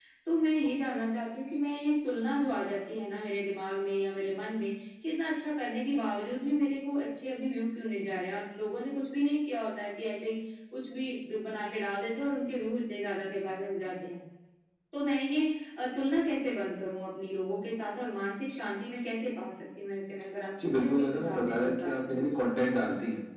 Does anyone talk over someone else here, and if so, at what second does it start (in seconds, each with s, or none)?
20.6 s